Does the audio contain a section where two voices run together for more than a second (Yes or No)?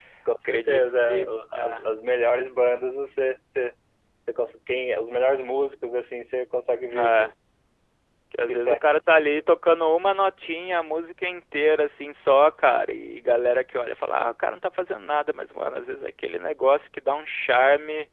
Yes